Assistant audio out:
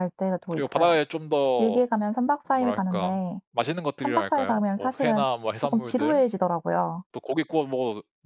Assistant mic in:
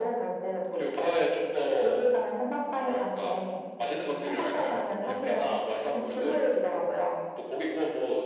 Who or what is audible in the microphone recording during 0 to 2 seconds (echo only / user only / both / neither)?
echo only